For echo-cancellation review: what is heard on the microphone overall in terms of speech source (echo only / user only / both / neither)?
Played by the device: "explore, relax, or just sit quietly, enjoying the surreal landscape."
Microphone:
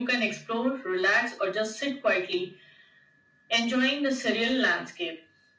echo only